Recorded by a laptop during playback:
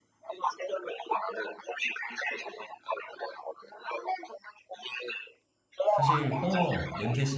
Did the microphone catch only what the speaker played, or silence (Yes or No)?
No